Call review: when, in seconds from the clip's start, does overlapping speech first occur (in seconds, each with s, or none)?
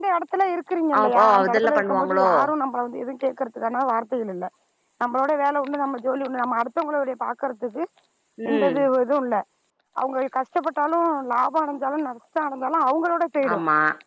1.0 s